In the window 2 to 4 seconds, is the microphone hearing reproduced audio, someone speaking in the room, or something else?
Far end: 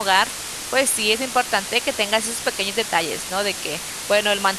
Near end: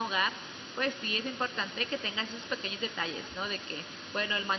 echo only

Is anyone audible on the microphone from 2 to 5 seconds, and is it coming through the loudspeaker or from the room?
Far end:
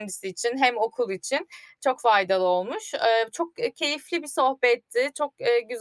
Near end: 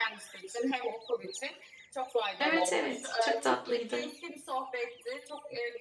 both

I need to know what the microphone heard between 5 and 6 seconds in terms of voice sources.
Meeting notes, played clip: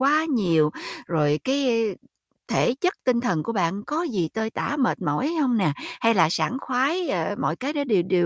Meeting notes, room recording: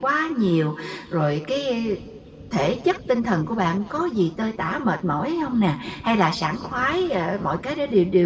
echo only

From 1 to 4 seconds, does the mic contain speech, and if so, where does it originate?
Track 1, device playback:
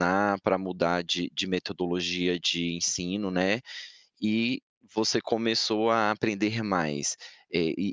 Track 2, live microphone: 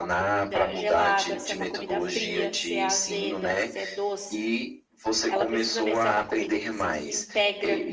both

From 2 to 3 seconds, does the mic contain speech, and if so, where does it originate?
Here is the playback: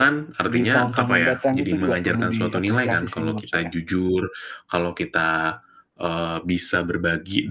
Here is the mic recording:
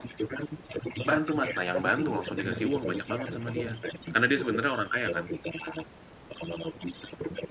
both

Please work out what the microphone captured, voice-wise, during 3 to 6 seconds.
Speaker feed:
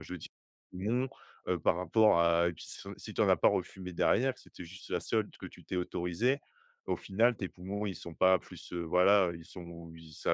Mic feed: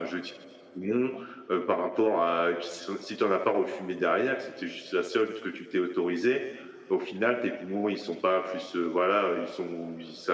echo only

